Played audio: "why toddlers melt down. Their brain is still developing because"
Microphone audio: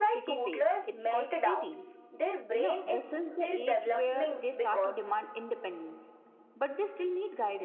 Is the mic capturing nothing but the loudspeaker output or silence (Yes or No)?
No